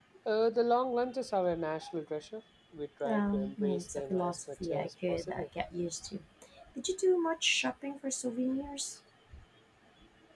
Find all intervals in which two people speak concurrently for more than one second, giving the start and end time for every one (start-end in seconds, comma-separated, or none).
3.0-5.4